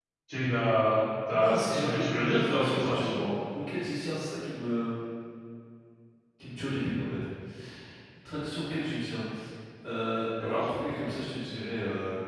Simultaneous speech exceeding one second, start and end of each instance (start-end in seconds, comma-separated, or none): 1.3-3.2